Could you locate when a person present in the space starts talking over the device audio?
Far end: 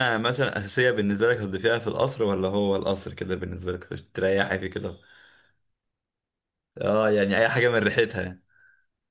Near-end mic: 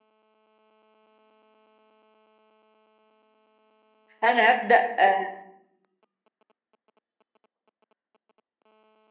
4.2 s

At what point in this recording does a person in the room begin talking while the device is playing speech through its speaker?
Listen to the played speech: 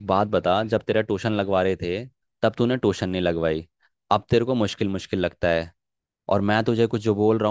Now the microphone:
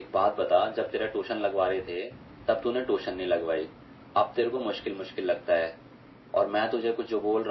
none

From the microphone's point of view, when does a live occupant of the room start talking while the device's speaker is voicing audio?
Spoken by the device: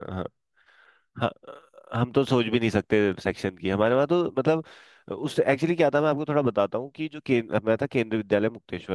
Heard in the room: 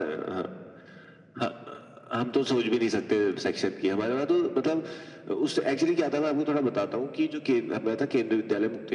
none

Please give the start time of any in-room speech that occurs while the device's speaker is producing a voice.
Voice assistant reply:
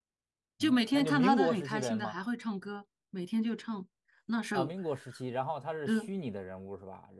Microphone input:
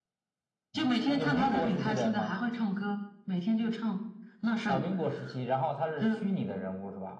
none

